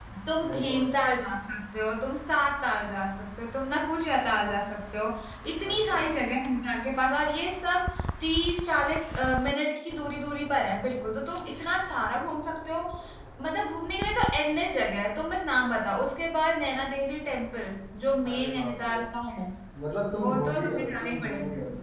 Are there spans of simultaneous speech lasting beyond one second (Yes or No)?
Yes